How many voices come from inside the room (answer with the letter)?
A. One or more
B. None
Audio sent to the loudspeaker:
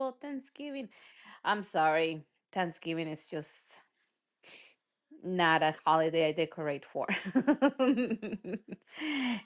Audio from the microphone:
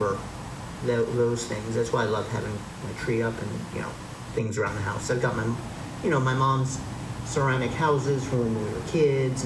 A